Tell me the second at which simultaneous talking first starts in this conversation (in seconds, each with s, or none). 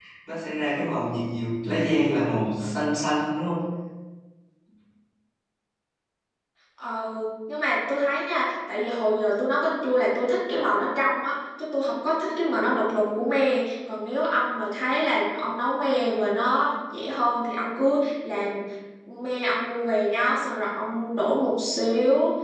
none